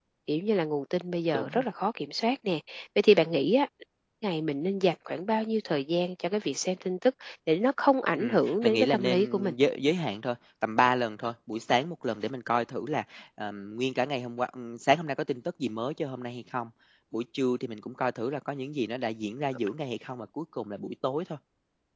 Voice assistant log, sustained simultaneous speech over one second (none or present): present